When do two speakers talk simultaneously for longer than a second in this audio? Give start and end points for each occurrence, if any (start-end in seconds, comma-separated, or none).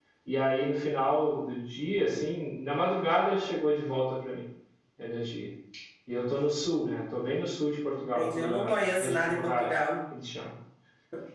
8.1-9.8